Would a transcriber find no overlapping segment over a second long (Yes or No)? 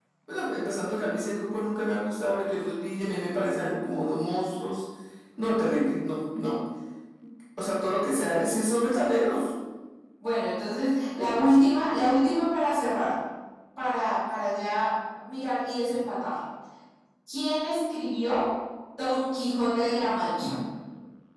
Yes